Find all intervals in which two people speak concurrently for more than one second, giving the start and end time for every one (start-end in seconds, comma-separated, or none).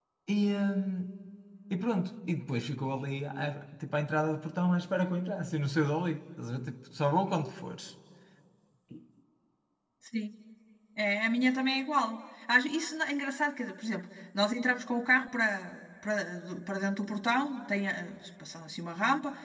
none